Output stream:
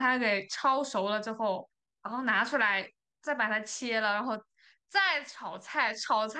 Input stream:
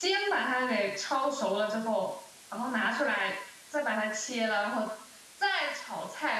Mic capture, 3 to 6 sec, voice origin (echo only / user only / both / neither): echo only